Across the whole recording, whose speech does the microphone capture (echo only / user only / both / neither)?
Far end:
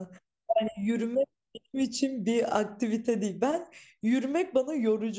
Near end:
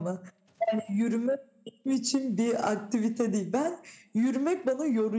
echo only